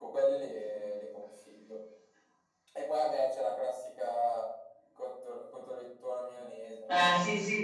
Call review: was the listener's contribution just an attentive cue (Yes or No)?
No